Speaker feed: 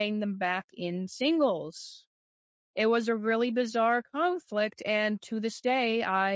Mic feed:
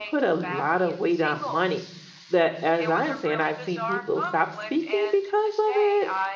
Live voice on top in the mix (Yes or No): Yes